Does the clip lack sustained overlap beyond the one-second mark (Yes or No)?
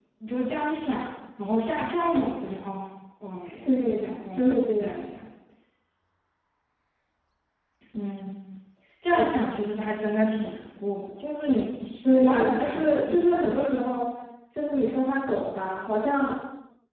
No